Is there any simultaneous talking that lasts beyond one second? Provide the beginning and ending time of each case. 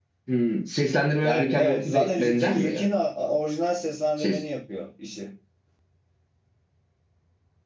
1.2-2.9

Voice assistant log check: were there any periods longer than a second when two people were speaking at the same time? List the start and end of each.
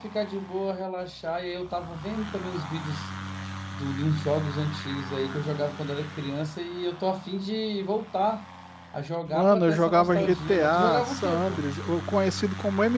9.3-11.7

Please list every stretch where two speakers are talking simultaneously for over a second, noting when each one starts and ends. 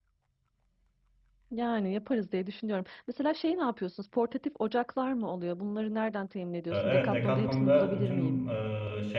6.7-8.4

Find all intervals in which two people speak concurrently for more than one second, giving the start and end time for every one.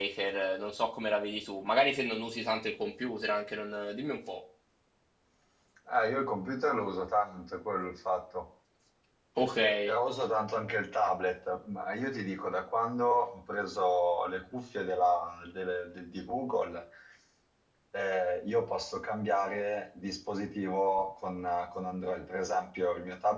none

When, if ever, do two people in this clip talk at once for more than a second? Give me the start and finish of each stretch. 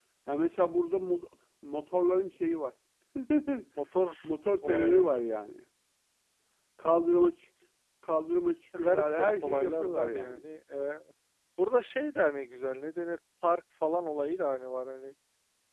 8.8-10.4

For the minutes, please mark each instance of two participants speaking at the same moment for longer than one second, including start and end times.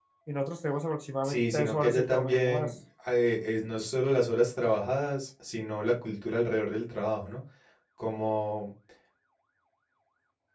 1.2-2.7

